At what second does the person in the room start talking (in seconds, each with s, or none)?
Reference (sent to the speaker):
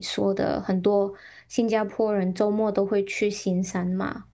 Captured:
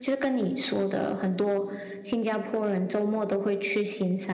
none